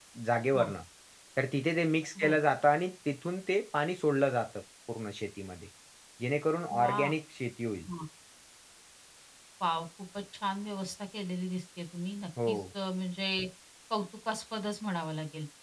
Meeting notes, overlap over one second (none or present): none